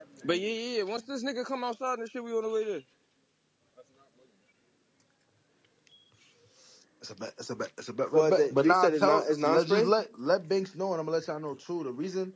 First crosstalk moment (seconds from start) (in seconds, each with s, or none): 8.1 s